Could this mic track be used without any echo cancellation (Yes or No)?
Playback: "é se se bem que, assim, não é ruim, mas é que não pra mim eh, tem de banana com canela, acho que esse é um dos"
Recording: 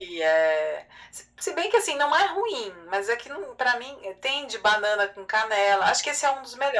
No